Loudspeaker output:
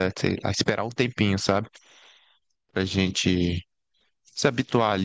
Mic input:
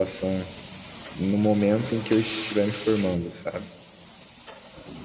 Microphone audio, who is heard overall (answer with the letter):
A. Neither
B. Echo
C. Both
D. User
D